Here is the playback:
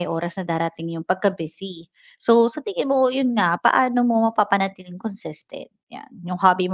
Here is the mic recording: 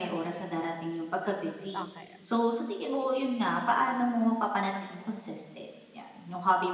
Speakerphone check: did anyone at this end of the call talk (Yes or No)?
Yes